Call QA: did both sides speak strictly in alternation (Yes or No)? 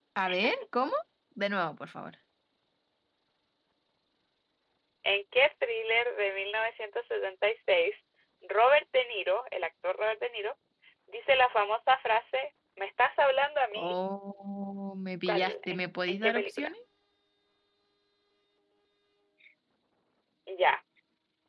No